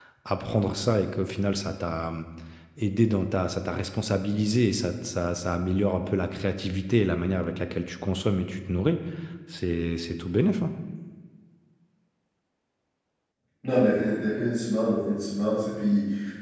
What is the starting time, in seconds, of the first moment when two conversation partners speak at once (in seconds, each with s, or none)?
none